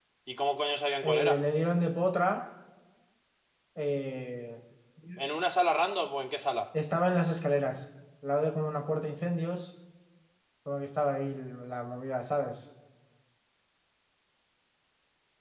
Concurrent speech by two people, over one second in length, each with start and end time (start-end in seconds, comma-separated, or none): none